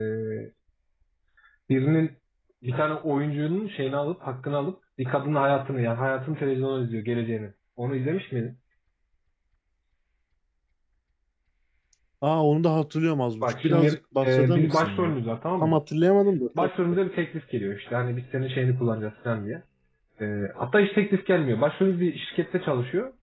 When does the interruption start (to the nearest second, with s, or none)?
13 s